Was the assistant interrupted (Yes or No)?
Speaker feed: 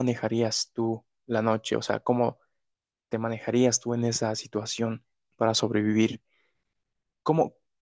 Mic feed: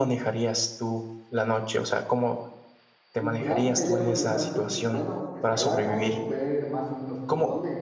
Yes